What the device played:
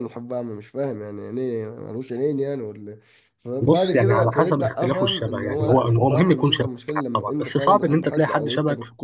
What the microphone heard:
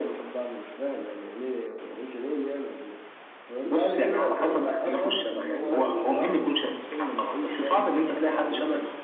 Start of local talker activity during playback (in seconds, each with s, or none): none